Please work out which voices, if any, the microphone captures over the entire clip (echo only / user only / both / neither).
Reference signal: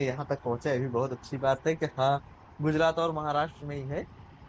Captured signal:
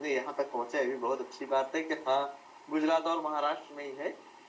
echo only